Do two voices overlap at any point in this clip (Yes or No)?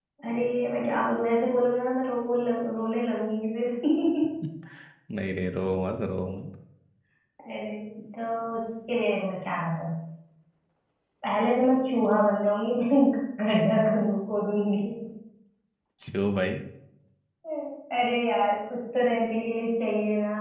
No